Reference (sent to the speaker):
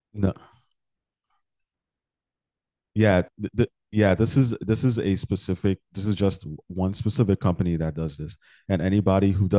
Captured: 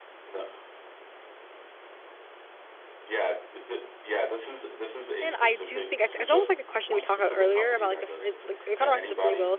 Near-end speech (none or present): present